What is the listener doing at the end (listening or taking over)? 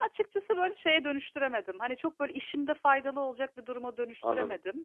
taking over